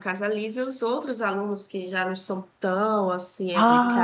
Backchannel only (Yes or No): No